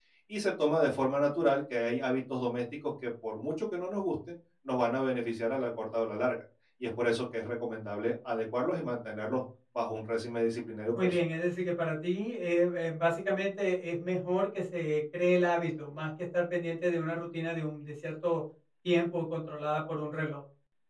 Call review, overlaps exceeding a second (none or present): none